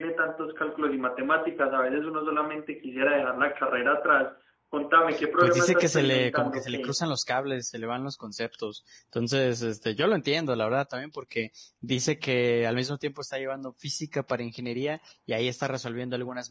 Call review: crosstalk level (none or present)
present